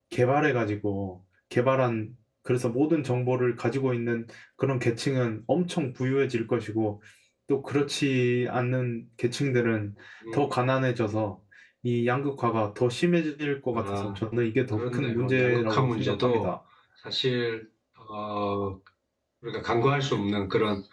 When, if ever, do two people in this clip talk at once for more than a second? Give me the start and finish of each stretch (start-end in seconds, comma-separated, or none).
14.8-16.5